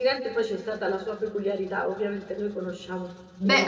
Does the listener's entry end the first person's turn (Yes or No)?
Yes